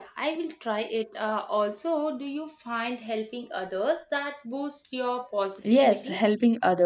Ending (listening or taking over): taking over